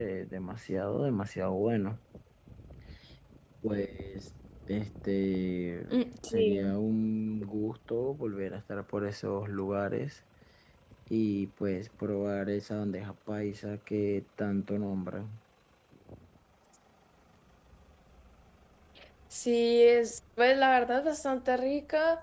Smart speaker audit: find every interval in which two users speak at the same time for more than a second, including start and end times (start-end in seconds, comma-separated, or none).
none